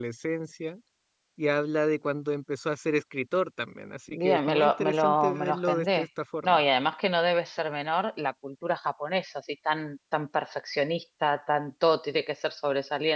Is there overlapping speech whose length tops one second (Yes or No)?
Yes